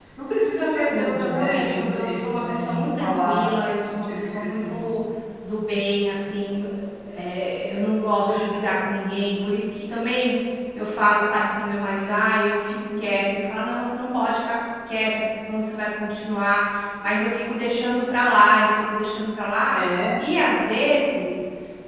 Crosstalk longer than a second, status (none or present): present